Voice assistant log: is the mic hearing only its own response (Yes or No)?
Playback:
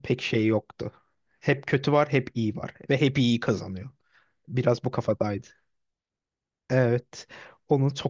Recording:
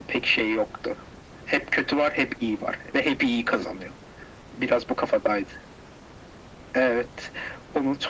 Yes